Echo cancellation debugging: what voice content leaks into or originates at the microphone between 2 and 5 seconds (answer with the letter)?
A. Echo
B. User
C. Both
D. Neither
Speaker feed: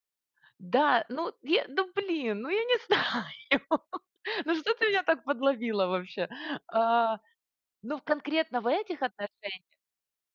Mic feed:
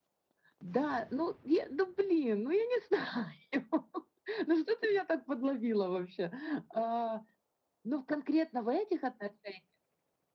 A